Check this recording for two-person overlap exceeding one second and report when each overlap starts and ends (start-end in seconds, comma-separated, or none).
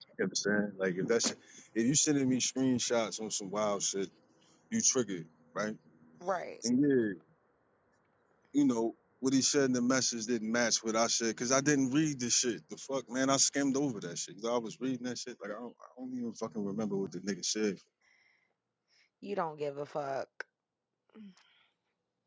none